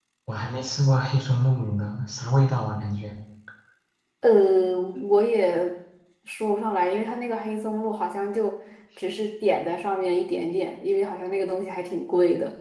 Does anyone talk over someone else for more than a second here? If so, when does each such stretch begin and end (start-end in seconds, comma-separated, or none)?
none